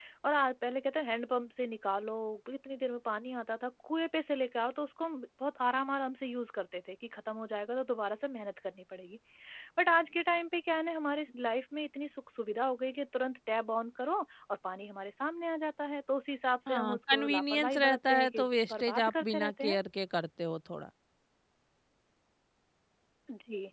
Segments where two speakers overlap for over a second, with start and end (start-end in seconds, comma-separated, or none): 16.7-19.8